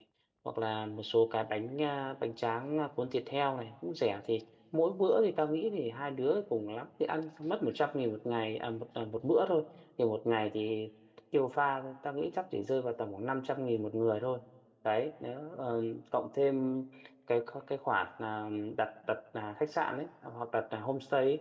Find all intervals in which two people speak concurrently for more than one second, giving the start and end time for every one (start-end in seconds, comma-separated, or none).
none